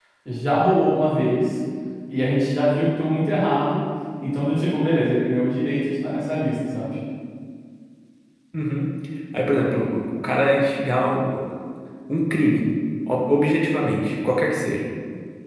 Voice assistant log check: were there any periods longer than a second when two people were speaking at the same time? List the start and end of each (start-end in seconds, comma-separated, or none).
none